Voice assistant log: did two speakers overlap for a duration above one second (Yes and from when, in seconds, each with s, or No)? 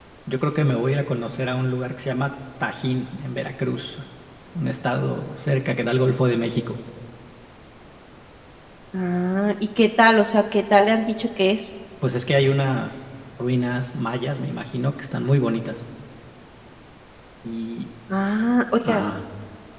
No